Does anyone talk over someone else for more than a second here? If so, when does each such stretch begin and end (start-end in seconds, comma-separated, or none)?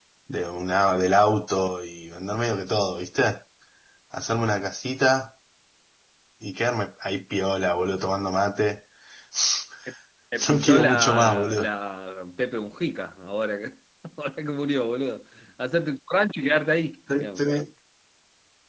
10.5-11.7